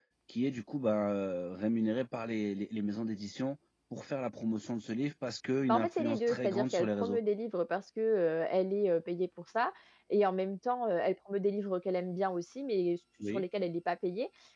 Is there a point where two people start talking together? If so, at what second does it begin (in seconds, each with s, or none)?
5.7 s